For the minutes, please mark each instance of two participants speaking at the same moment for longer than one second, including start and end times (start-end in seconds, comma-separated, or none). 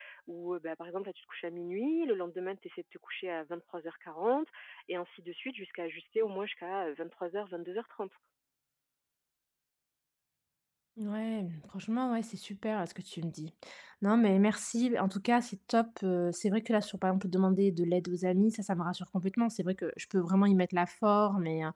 none